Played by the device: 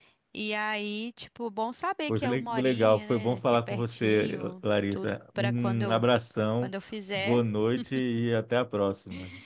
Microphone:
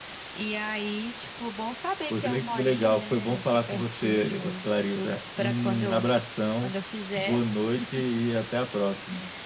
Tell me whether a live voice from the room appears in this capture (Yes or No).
No